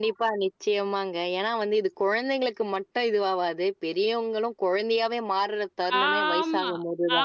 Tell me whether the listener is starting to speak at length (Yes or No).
Yes